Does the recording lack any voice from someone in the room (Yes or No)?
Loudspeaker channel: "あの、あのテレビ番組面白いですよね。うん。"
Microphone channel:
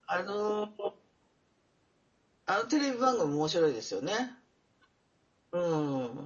Yes